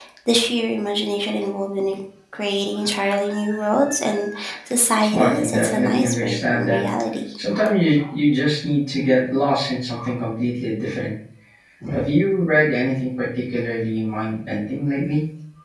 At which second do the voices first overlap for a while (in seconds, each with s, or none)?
5.1 s